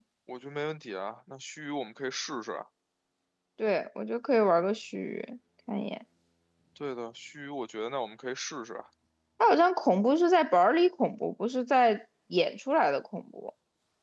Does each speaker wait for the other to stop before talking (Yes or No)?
Yes